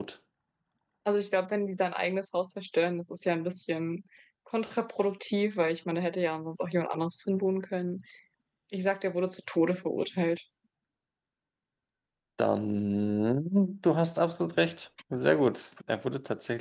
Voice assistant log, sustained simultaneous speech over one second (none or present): none